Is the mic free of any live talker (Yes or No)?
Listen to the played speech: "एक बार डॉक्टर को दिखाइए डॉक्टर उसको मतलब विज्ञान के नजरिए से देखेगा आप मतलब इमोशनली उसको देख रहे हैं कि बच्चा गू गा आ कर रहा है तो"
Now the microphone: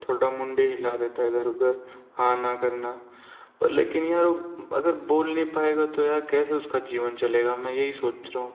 No